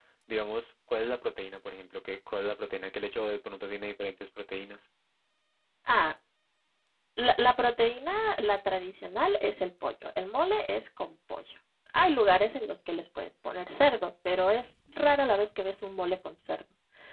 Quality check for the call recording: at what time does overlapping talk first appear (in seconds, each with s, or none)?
none